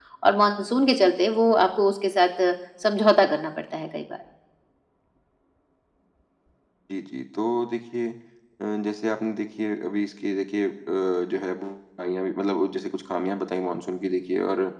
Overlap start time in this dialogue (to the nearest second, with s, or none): none